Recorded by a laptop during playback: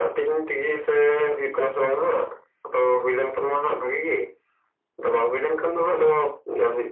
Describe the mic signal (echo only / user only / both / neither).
echo only